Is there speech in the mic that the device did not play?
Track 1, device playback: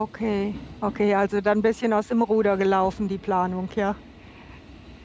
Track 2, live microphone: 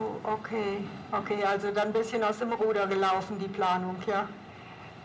No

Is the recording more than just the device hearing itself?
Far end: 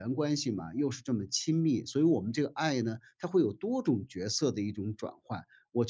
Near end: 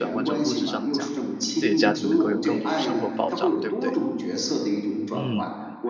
Yes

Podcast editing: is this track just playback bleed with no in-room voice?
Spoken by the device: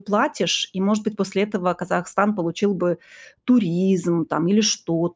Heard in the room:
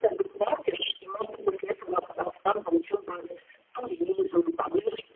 Yes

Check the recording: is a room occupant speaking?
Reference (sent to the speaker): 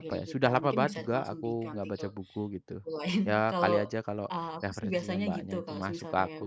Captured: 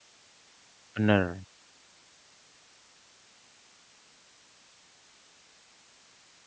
Yes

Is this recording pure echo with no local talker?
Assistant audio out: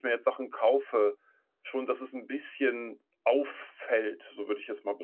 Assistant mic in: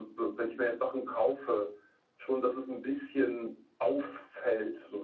Yes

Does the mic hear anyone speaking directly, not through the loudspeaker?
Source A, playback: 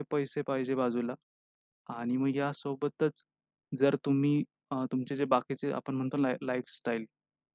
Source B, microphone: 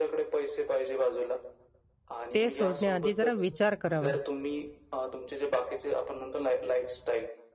Yes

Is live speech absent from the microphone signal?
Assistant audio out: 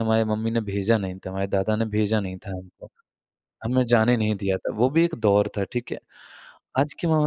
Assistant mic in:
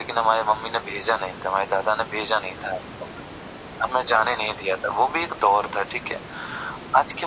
Yes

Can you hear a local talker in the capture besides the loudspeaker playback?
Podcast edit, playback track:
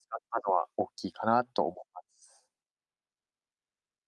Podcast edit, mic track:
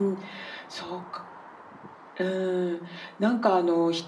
Yes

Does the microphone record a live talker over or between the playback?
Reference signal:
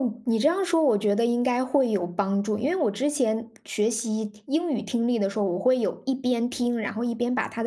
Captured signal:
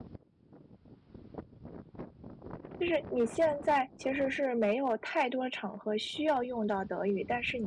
Yes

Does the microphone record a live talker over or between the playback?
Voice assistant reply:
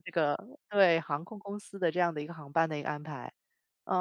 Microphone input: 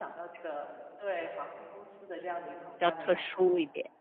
Yes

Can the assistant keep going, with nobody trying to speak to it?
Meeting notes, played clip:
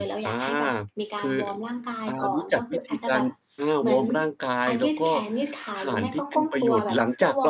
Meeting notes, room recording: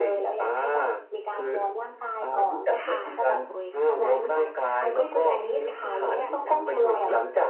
No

